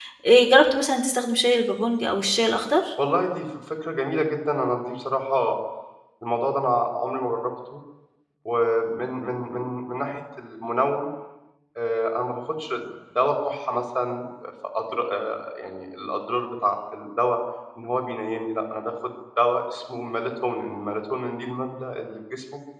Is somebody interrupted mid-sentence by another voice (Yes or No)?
No